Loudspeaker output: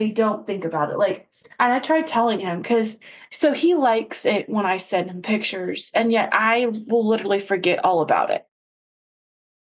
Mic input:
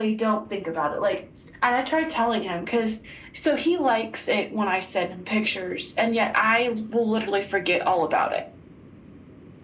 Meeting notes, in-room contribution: none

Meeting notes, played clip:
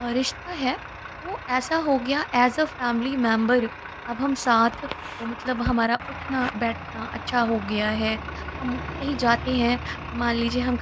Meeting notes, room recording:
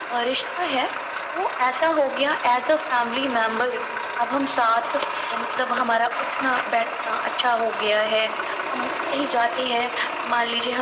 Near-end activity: none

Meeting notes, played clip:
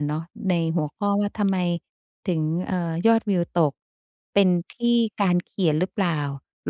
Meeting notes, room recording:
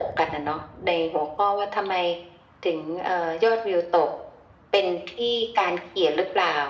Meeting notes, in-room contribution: none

